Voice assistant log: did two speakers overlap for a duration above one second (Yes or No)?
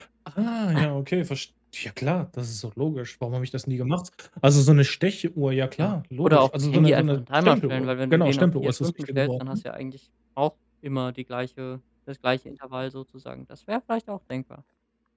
Yes